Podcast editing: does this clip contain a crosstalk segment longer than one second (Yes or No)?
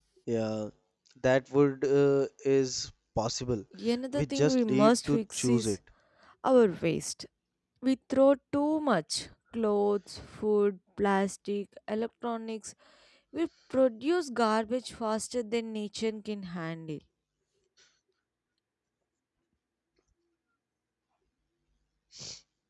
Yes